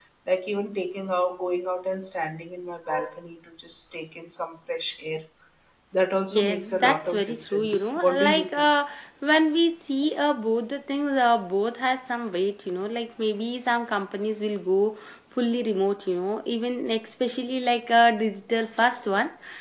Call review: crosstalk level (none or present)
present